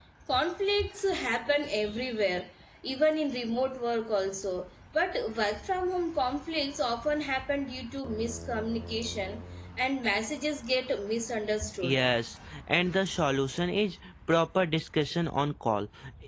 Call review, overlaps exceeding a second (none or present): none